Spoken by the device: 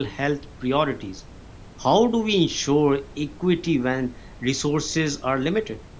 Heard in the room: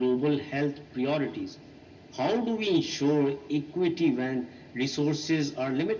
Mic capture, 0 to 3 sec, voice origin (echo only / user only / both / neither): echo only